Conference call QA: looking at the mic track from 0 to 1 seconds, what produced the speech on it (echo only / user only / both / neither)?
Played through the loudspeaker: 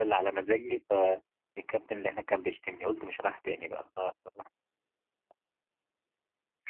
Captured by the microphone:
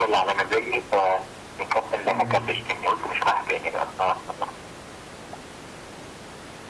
echo only